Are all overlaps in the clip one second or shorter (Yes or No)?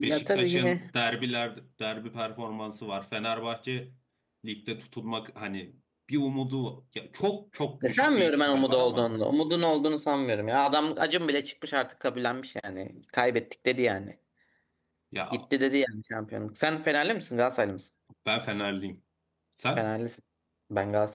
No